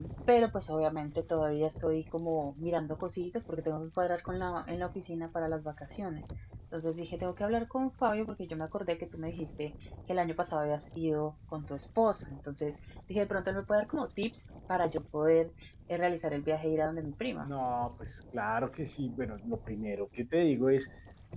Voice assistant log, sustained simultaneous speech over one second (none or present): none